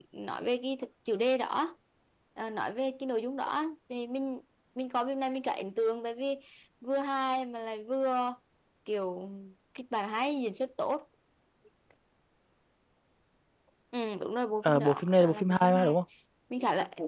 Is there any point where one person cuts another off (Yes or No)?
Yes